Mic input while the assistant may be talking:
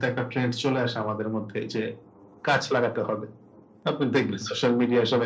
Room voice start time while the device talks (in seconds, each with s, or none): none